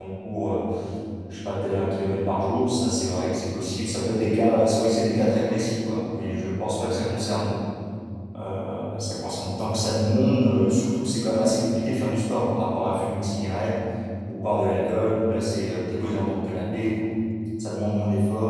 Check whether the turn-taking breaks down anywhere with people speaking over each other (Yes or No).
No